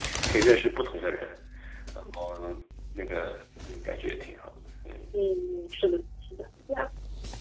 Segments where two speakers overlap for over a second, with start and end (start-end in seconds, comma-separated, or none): none